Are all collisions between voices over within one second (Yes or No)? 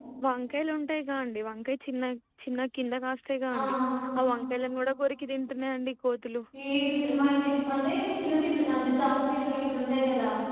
Yes